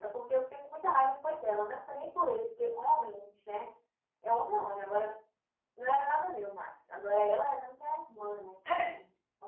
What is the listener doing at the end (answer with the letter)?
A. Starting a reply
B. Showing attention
B